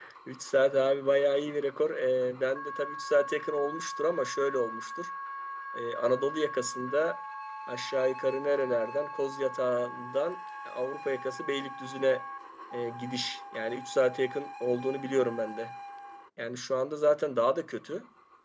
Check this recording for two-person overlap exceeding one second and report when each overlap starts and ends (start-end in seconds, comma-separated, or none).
none